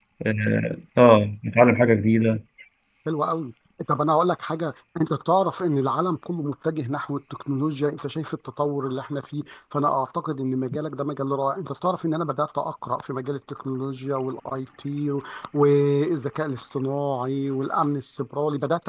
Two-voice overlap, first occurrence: none

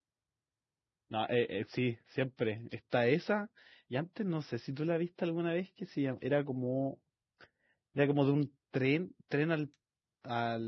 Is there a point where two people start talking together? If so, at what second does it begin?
none

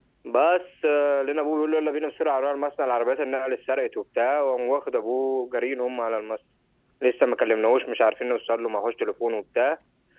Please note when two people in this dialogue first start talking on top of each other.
none

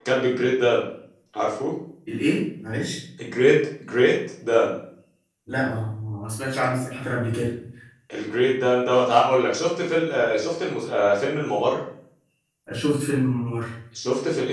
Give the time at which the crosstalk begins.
none

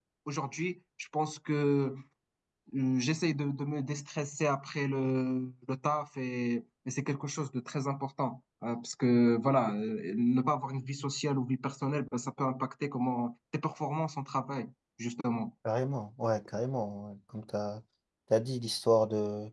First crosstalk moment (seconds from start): none

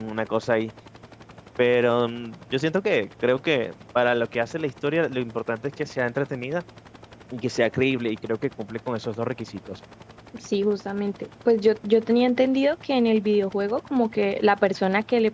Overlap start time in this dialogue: none

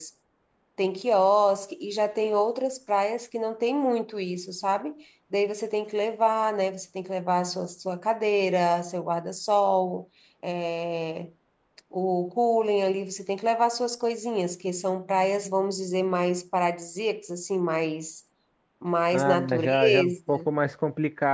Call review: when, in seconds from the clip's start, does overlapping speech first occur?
19.1 s

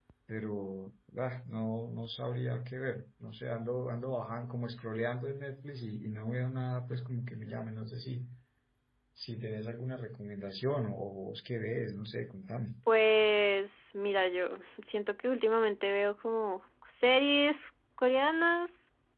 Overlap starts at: none

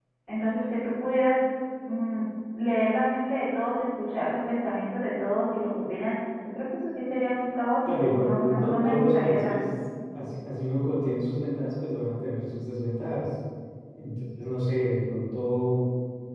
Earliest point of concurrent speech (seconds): 7.9 s

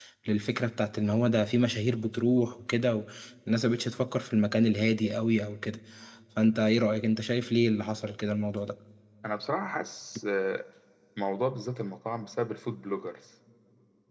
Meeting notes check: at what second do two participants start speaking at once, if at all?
none

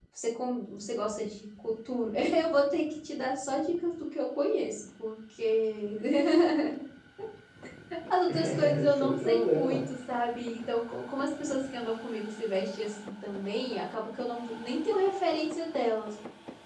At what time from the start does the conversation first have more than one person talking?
8.3 s

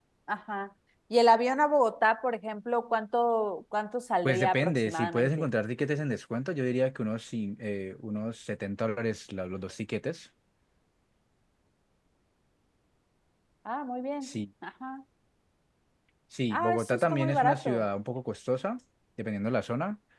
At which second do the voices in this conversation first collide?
4.2 s

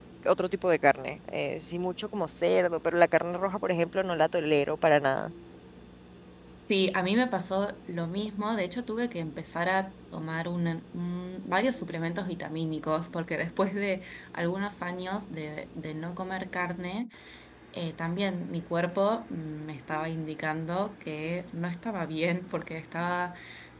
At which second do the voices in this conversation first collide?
none

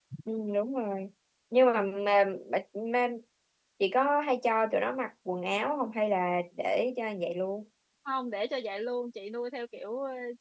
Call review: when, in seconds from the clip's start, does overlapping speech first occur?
none

